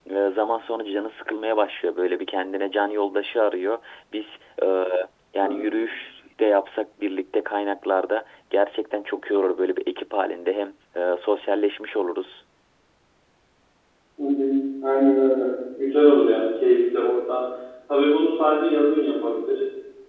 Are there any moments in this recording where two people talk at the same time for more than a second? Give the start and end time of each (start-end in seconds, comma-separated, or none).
none